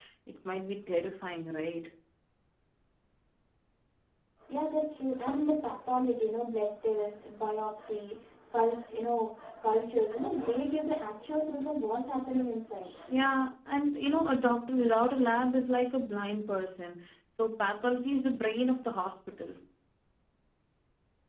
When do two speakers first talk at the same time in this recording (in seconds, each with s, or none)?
none